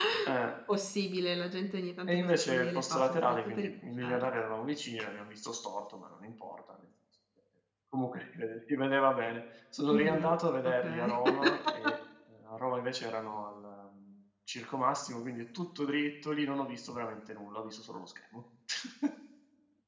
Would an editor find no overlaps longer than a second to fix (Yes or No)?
No